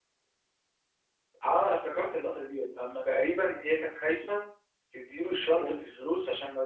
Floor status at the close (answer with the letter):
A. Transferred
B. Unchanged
B